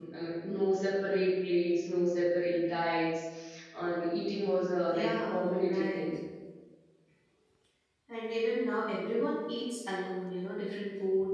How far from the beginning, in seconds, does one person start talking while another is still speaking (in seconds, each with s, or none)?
4.9 s